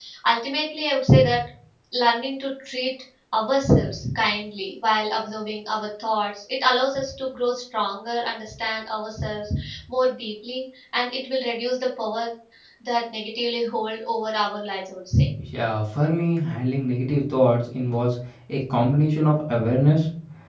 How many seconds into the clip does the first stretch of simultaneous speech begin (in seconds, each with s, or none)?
none